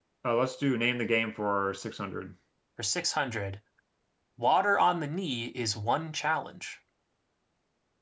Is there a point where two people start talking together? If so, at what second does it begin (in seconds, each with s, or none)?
none